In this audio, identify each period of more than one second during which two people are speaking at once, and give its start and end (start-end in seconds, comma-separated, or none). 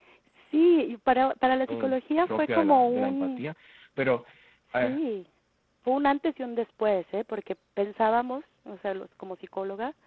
2.2-3.4